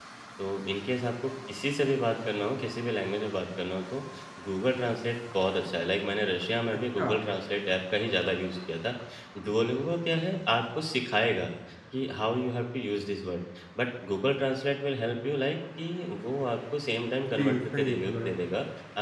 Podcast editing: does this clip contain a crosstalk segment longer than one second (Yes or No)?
Yes